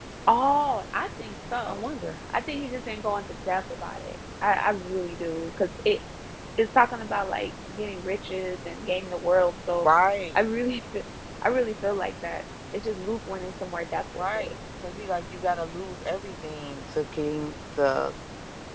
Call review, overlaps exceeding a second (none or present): none